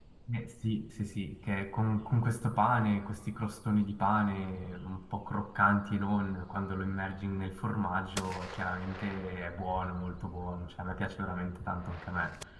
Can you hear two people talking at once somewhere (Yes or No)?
No